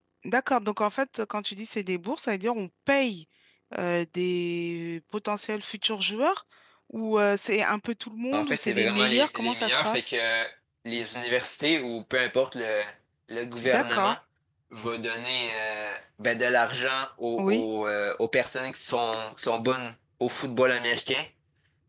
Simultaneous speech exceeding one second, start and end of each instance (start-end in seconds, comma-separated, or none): 8.3-10.1